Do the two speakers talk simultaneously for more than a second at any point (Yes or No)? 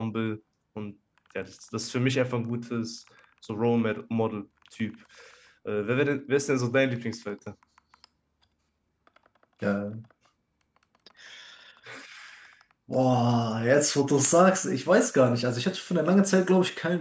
No